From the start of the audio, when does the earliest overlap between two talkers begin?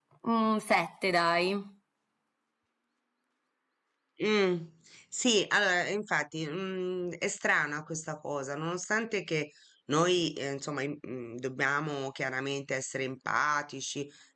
none

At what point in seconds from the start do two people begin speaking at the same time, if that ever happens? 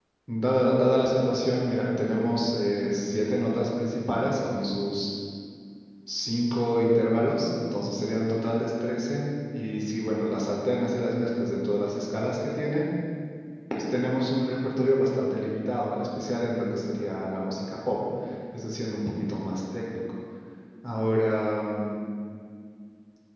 none

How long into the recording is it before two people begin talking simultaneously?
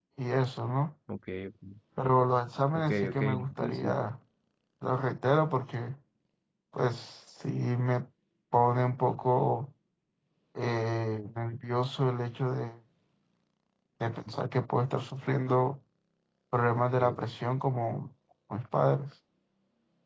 2.8 s

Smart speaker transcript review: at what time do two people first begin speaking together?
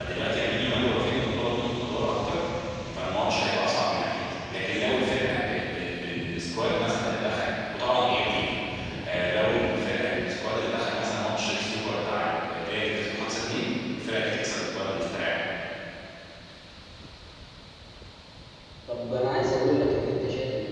none

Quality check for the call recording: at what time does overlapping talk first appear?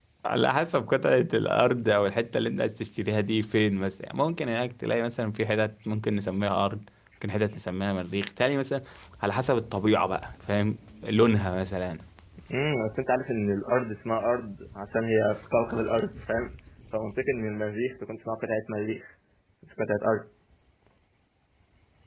none

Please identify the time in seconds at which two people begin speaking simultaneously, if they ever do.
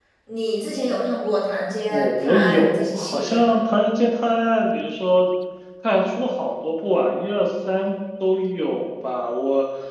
1.9 s

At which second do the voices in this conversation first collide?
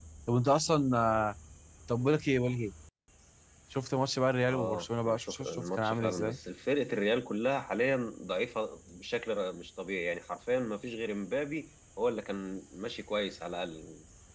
4.5 s

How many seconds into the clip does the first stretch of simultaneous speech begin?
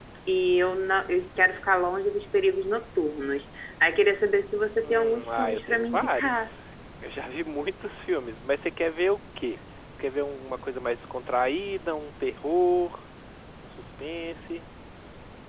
4.8 s

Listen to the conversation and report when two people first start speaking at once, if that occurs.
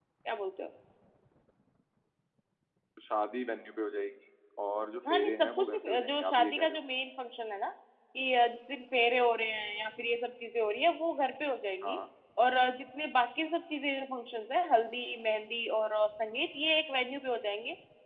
5.1 s

